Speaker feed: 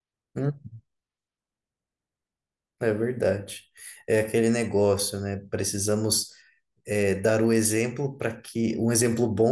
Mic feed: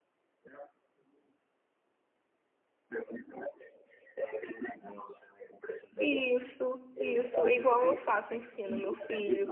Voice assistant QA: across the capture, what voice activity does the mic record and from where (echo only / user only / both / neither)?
both